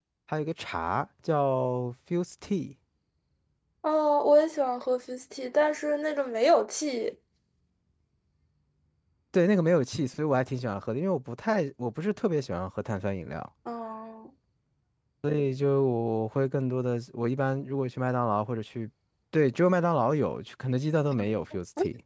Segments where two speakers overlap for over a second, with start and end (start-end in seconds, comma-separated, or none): none